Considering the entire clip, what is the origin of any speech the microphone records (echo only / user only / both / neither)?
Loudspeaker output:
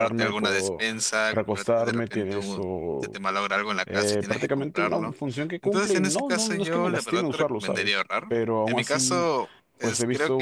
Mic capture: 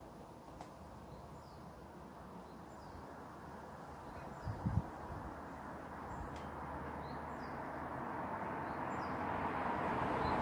neither